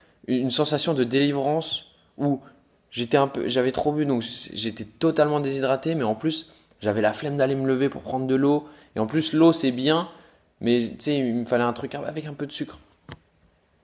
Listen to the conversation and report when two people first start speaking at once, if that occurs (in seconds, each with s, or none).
none